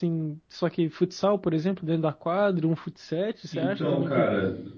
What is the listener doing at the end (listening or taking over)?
taking over